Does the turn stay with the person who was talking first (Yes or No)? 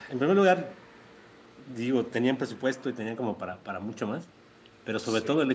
Yes